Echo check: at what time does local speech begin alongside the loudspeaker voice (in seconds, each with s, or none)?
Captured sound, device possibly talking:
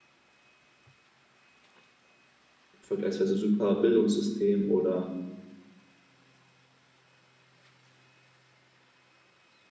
2.8 s